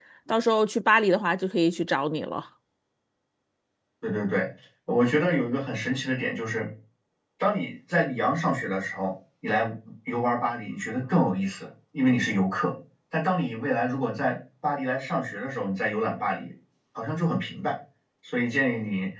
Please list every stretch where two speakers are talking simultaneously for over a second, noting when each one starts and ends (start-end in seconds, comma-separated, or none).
none